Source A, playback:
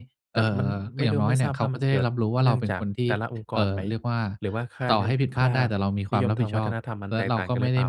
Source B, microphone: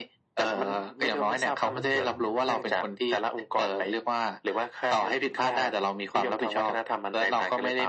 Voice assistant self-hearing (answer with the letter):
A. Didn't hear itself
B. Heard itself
B